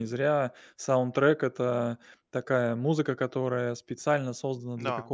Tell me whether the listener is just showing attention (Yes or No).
Yes